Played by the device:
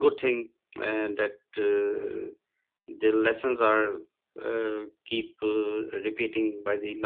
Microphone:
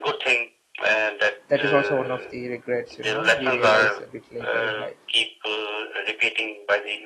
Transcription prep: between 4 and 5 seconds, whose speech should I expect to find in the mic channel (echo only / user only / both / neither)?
both